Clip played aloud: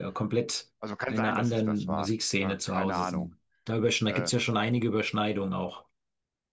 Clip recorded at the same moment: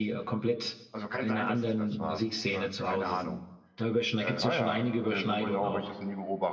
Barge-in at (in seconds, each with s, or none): 4.4 s